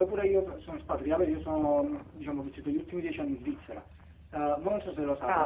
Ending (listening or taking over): listening